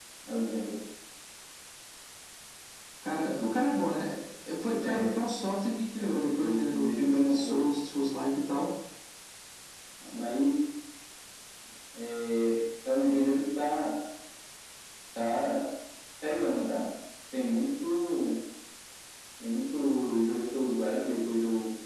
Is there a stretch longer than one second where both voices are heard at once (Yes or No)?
Yes